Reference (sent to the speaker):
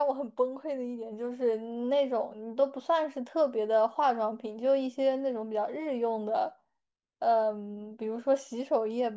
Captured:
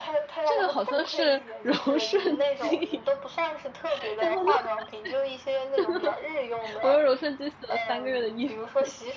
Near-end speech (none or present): present